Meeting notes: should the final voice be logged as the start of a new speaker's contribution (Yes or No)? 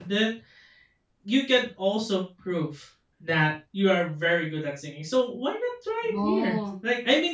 No